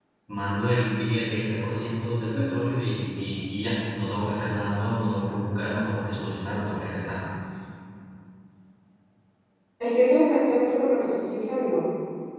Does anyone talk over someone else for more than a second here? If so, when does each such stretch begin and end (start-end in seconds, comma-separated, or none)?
none